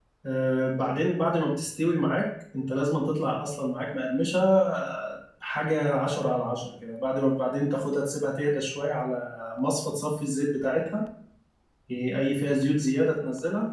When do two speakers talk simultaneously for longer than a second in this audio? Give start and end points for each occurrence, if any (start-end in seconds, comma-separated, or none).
none